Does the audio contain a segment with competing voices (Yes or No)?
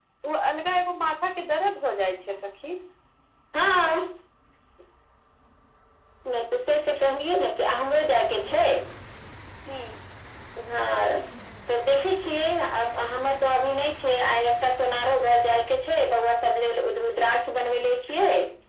No